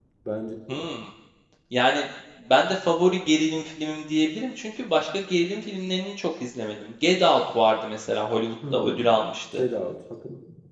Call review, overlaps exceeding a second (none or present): none